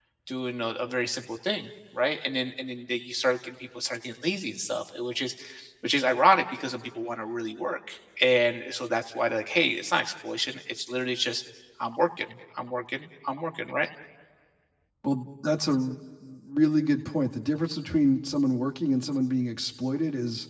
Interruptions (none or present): none